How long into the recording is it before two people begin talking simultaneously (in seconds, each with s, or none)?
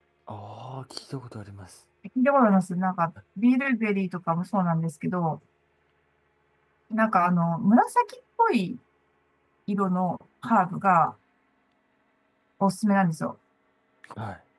none